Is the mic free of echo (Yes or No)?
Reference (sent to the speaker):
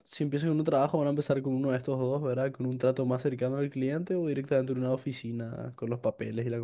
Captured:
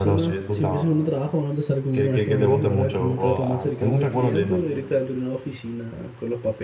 No